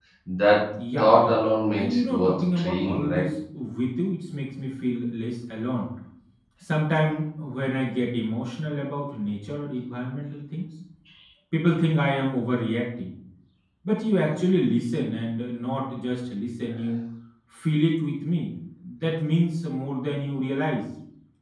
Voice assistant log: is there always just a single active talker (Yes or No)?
No